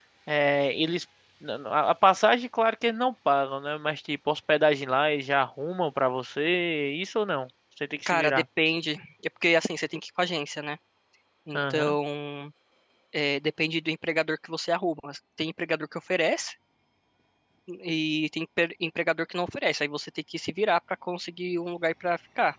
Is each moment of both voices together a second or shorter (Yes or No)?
Yes